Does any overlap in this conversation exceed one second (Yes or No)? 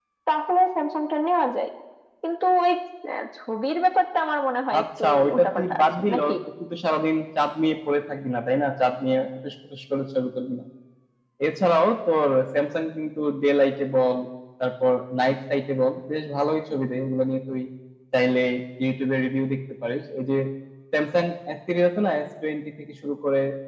Yes